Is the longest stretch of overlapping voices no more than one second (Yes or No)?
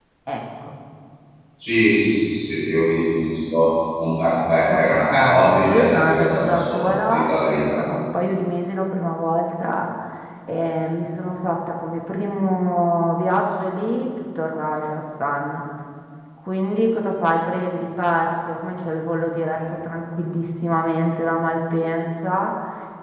No